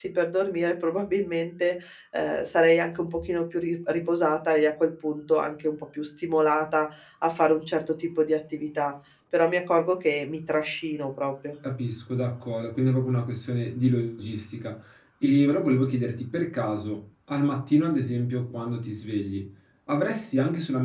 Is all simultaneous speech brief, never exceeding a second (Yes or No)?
Yes